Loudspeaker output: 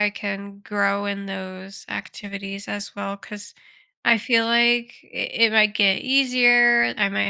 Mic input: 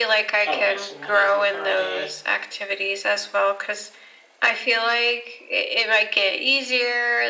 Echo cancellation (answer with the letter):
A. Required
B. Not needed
A